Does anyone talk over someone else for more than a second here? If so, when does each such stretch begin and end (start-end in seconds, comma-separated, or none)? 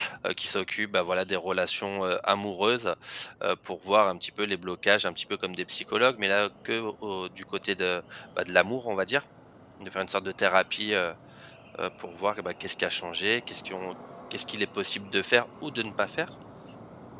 none